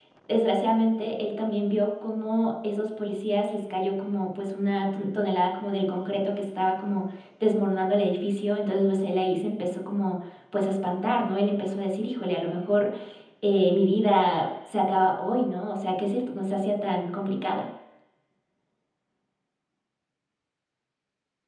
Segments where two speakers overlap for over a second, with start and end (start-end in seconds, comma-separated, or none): none